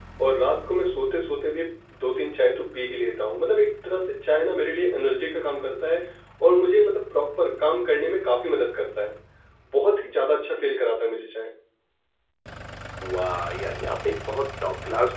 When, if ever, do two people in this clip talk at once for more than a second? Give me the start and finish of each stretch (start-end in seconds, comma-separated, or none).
none